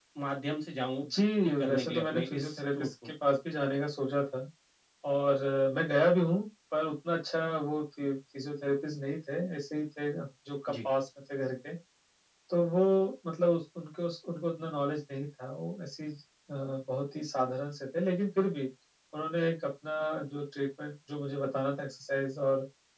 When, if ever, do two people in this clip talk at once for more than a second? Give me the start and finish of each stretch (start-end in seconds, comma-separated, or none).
1.6-2.9